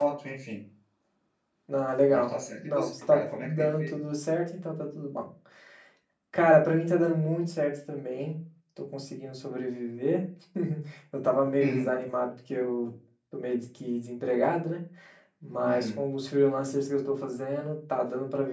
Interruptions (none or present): present